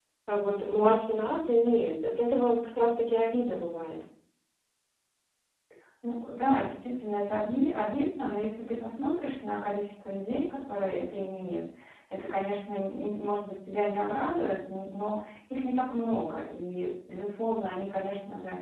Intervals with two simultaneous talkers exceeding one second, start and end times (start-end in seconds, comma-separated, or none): none